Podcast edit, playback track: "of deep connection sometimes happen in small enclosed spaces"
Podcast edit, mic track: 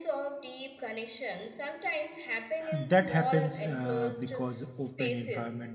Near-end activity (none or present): present